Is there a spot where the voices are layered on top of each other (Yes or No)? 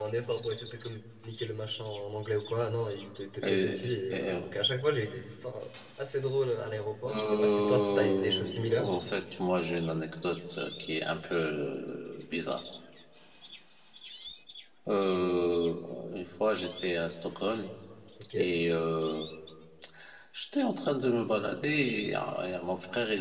Yes